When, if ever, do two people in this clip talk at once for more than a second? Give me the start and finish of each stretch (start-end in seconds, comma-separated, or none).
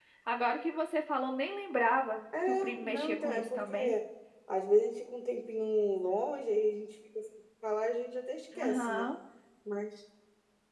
2.5-3.7